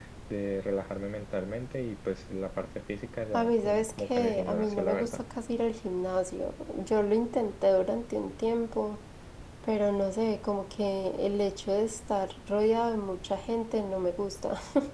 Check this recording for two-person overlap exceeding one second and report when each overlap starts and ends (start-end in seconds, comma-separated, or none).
3.3-5.2